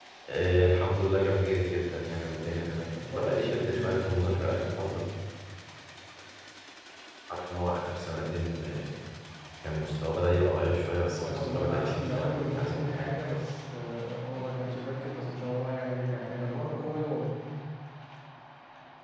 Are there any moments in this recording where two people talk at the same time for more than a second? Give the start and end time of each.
3.1-4.3, 11.2-13.1

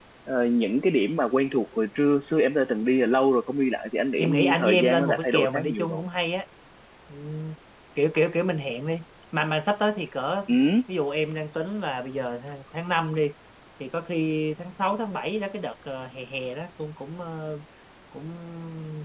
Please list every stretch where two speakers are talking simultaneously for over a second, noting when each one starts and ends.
4.2-6.0

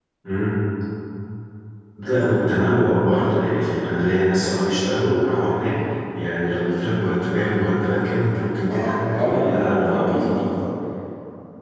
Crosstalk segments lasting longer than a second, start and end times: 8.7-10.5

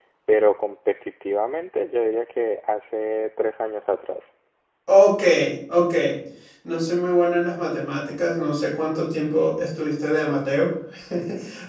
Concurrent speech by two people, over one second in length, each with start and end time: none

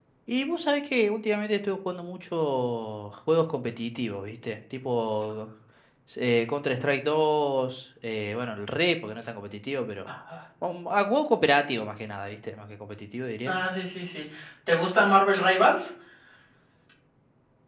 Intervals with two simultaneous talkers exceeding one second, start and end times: none

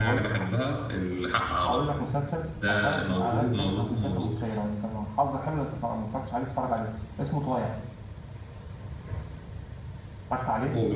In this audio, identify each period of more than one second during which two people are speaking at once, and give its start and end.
2.7-4.3

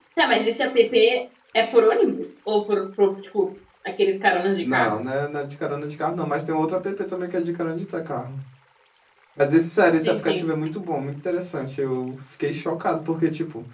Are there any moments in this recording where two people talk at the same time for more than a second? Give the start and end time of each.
none

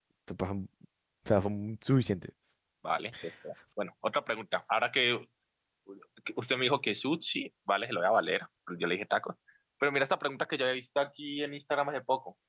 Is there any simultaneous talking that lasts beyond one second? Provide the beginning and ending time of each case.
none

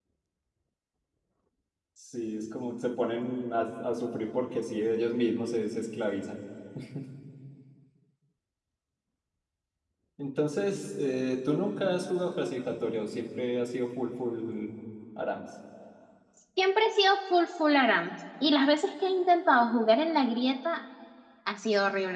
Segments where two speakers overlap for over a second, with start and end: none

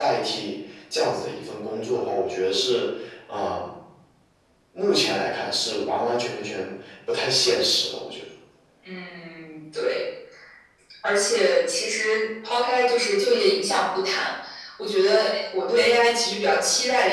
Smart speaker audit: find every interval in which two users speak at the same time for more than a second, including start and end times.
none

